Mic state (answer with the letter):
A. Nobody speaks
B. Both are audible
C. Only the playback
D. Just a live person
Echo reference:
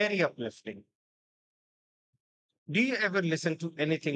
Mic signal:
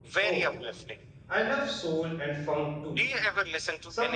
B